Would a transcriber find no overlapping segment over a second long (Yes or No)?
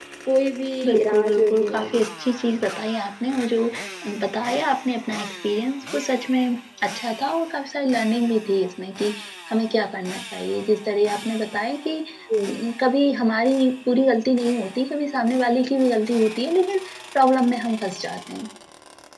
No